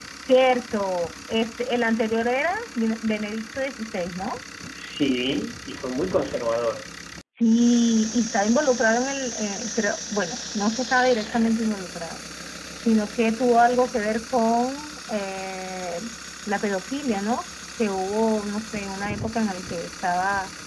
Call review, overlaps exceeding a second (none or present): none